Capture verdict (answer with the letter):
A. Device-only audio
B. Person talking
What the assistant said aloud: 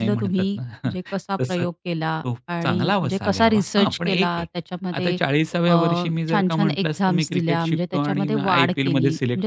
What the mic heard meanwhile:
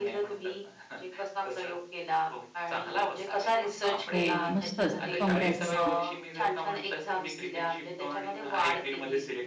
B